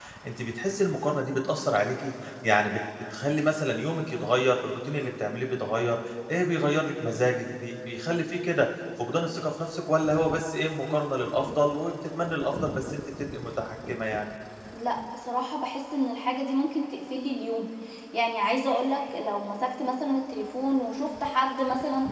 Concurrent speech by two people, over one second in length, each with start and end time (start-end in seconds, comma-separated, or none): none